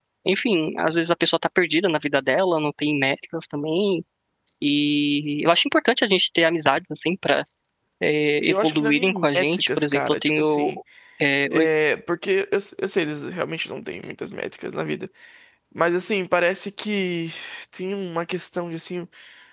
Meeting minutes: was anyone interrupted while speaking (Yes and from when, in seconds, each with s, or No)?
Yes, from 8.5 s